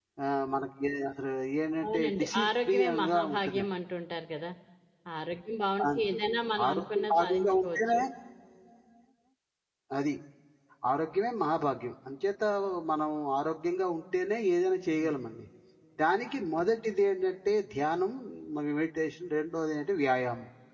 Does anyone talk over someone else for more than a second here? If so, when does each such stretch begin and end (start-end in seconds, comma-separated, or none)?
1.8-3.6, 6.7-8.0